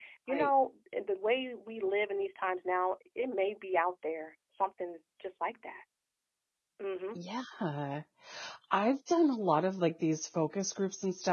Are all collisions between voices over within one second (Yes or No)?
Yes